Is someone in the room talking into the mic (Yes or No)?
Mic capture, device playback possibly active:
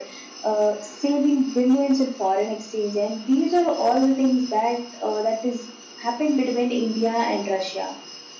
No